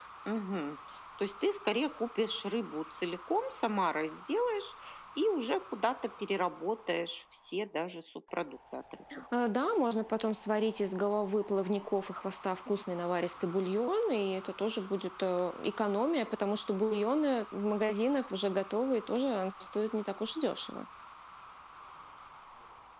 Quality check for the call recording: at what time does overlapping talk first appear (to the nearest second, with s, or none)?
none